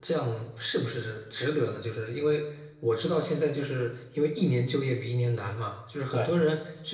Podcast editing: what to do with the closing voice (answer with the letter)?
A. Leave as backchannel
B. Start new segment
A